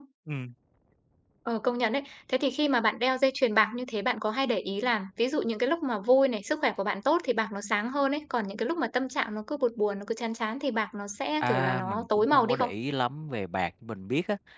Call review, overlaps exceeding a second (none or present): present